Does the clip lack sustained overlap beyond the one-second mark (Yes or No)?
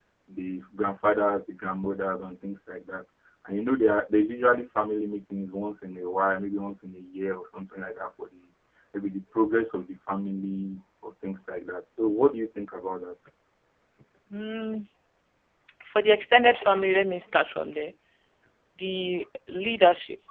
Yes